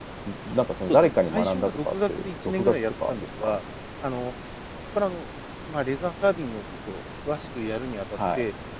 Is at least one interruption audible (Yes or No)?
Yes